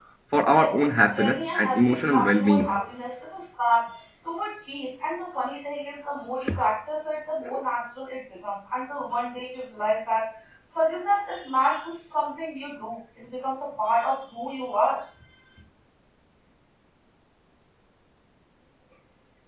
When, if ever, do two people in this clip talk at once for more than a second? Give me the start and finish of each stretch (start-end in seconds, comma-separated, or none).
0.5-2.7